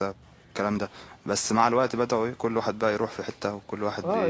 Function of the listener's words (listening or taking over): taking over